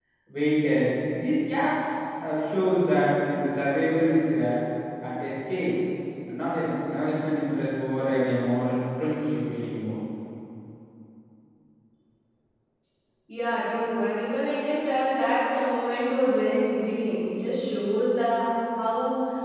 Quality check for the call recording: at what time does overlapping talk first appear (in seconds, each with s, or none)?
none